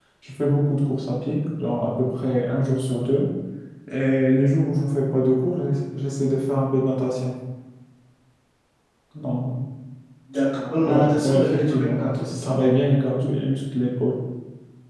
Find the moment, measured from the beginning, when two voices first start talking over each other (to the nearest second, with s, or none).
11 s